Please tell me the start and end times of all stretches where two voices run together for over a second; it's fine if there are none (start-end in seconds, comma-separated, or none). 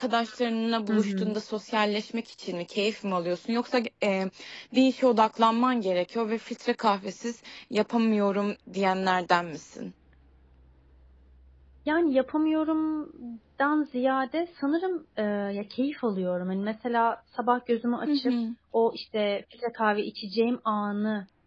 none